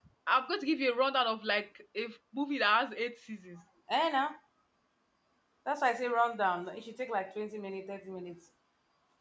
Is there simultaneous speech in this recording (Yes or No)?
No